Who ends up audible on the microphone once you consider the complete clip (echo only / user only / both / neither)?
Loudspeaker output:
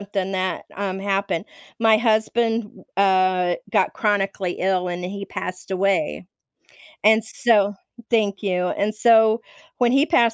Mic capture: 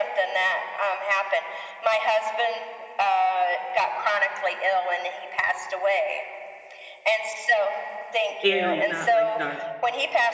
both